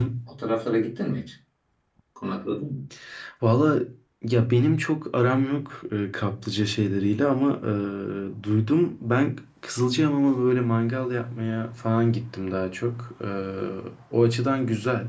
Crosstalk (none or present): none